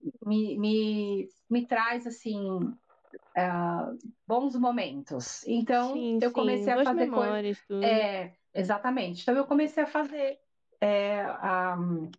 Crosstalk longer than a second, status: present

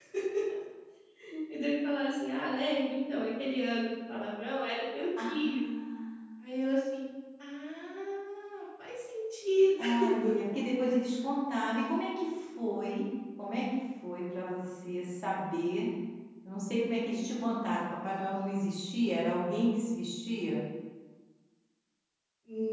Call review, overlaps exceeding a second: none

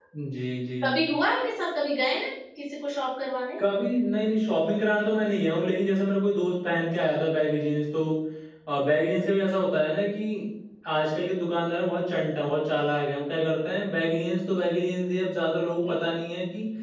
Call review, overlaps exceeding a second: none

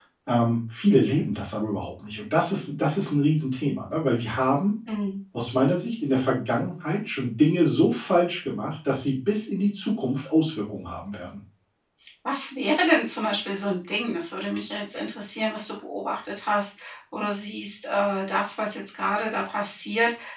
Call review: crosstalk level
none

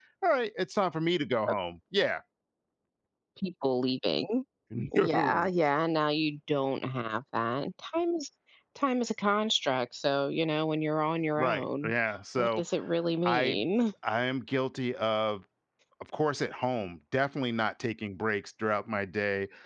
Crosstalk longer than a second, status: none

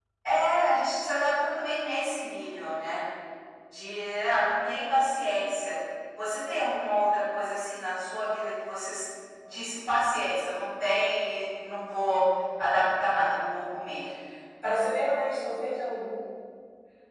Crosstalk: none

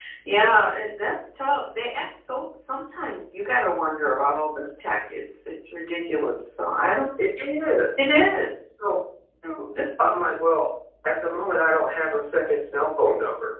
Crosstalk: none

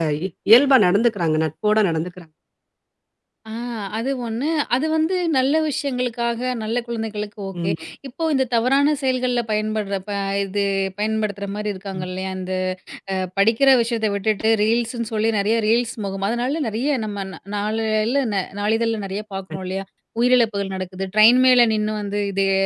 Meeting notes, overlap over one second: none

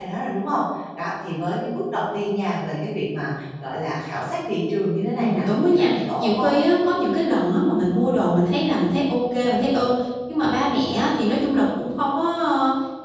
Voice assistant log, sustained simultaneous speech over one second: present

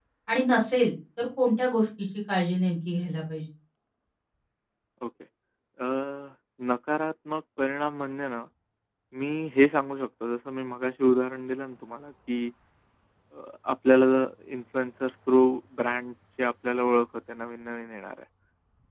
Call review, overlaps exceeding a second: none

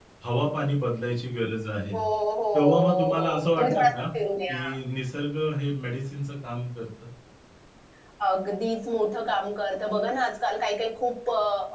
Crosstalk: present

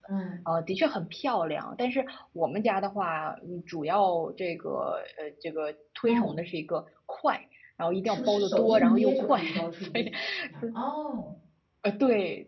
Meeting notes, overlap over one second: present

